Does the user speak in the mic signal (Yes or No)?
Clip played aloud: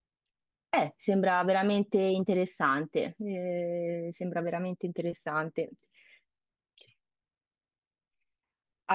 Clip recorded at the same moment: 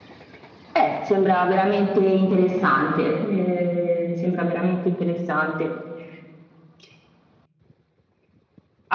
No